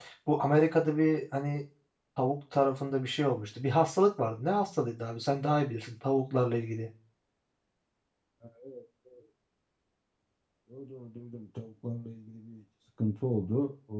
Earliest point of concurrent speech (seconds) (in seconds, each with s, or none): none